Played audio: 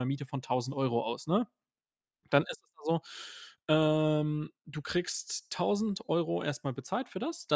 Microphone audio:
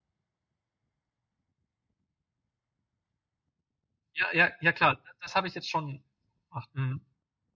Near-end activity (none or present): present